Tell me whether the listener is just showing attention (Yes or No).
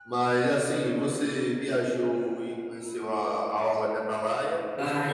No